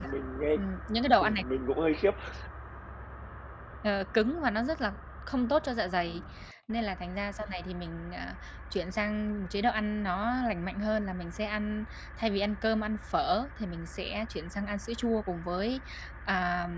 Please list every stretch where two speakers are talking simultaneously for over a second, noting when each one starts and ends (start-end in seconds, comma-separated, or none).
none